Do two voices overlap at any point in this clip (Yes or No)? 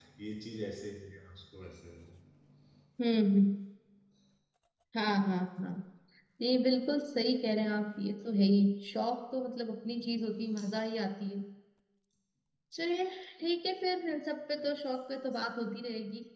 No